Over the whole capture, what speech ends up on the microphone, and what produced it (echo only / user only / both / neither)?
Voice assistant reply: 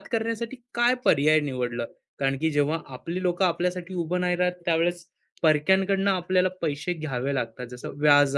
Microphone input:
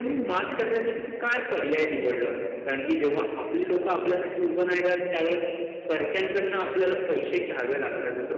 echo only